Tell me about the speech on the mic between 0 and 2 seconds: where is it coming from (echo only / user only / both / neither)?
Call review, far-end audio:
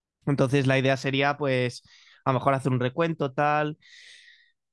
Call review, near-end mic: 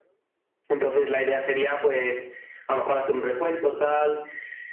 echo only